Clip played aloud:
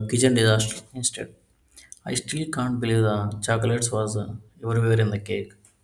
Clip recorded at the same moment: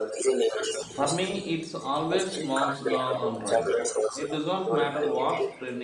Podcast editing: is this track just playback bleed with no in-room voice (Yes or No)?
No